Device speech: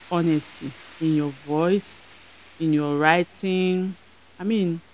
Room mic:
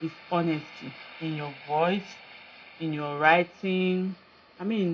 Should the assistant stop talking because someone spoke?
No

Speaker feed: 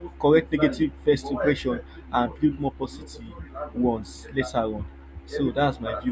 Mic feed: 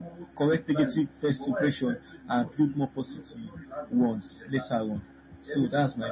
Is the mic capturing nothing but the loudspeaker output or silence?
Yes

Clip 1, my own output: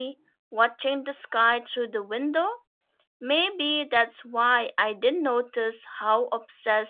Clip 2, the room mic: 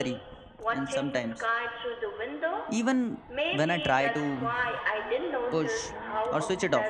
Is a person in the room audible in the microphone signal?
Yes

